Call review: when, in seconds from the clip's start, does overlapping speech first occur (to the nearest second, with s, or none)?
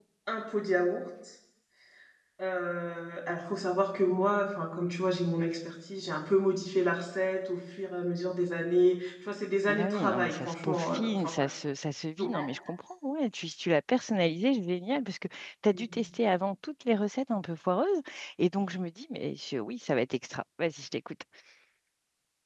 10 s